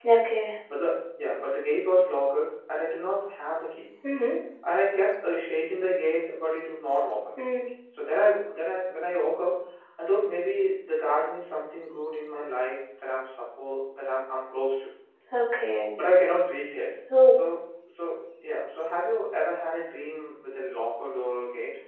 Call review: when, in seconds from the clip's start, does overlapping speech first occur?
none

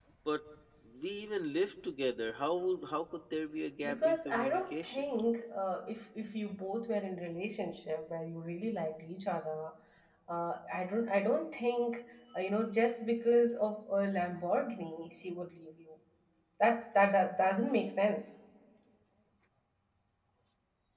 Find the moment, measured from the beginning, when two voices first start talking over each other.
3.8 s

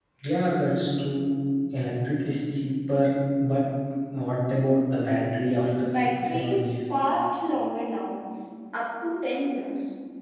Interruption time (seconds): 5.8 s

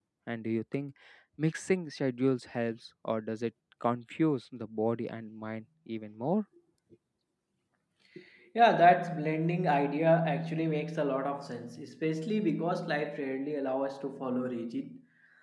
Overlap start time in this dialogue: none

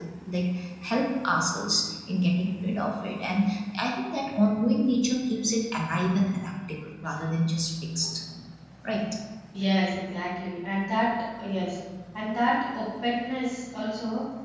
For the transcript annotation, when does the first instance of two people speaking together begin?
none

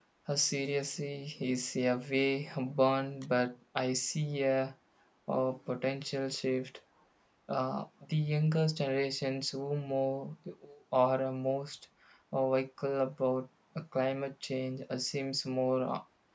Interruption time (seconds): none

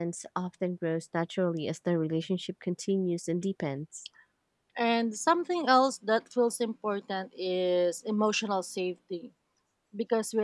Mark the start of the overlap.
none

